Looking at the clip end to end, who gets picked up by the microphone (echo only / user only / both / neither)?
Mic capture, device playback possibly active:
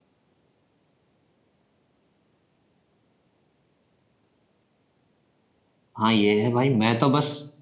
user only